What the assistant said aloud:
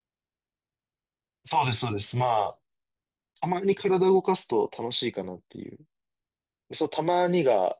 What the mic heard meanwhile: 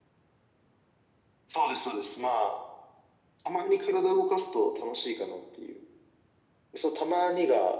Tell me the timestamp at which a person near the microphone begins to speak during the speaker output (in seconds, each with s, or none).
none